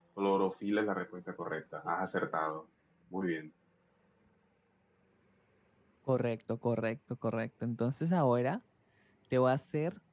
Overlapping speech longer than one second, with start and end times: none

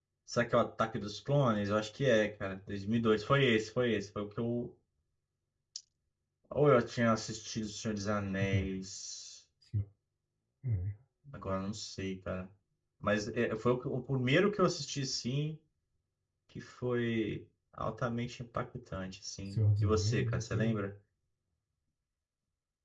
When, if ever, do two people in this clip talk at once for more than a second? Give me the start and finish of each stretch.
19.4-20.8

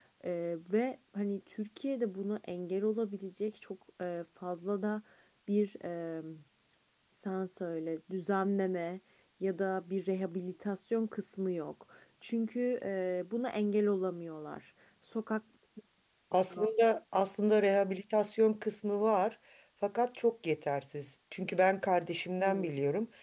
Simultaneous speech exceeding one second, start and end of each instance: none

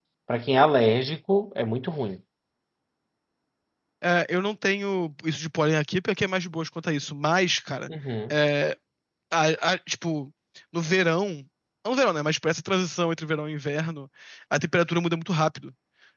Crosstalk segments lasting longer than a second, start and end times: none

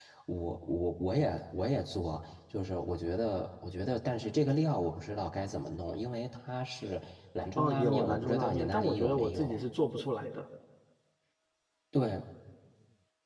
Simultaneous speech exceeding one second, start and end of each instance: 7.6-9.6

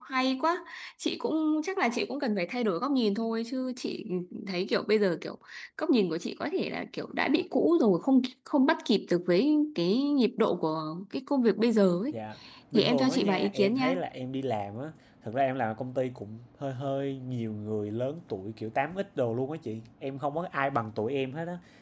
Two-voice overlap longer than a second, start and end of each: 12.7-13.9

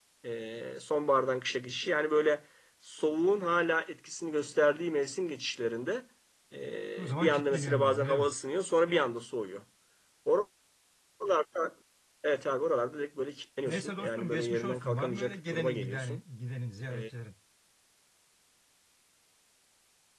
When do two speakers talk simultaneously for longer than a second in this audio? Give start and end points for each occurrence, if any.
7.0-8.3, 13.7-16.2

